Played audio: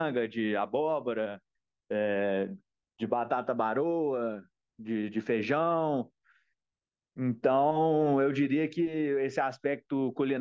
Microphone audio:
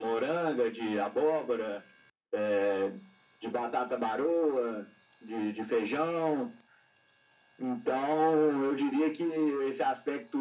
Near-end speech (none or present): none